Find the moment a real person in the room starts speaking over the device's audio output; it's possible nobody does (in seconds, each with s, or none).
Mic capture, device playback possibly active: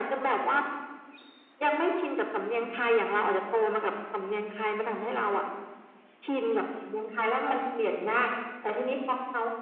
none